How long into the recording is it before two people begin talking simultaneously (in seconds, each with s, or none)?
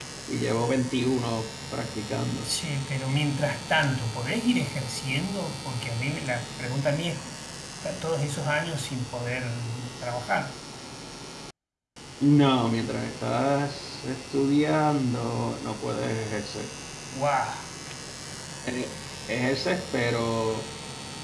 none